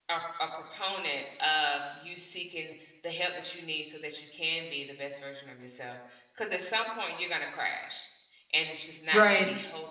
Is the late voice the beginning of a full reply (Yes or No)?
No